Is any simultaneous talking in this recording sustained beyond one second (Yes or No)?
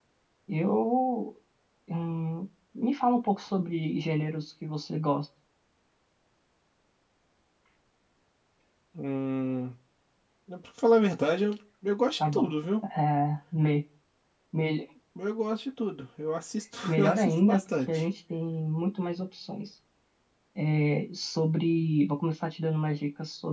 Yes